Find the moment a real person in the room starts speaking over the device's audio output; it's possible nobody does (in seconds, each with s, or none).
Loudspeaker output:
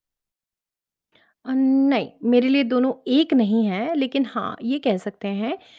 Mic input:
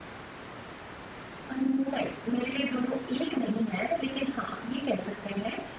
none